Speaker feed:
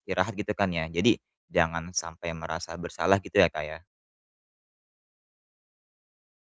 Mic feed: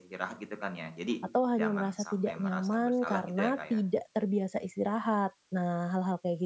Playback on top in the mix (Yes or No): No